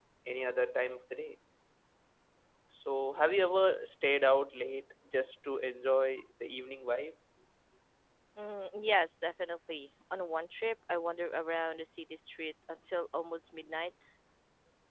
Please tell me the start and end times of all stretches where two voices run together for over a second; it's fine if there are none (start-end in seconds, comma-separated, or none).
none